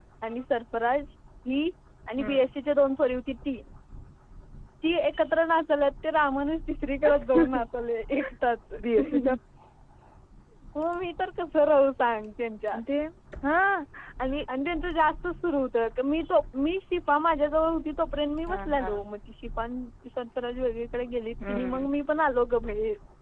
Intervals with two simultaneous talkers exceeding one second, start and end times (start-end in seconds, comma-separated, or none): none